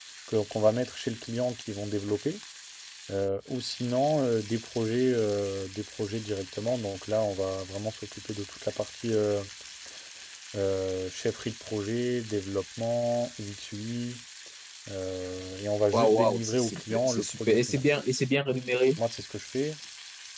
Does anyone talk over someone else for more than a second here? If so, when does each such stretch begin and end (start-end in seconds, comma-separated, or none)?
15.9-17.8